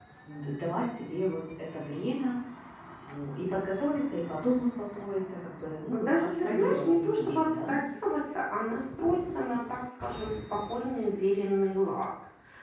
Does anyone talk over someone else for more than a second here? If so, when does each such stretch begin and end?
5.9-7.8

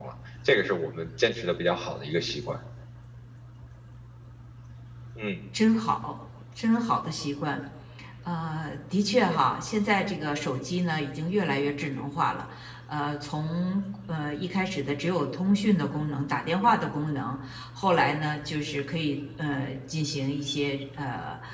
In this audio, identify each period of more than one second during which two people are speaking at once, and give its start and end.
none

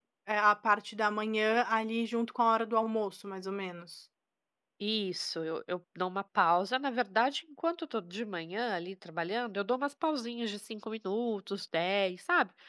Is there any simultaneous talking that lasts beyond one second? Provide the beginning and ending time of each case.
none

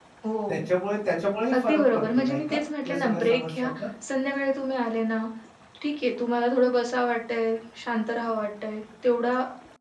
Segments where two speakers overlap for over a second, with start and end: 1.5-3.7

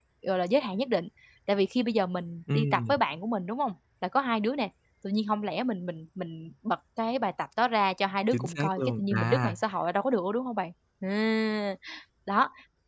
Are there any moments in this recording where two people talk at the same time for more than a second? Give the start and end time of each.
8.3-9.6

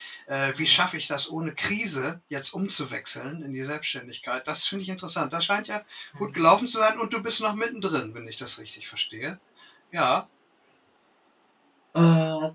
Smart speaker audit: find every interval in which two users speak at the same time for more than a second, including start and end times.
none

